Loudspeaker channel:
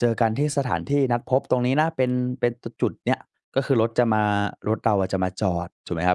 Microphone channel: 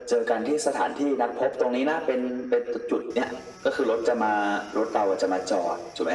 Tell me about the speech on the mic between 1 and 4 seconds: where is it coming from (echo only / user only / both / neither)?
echo only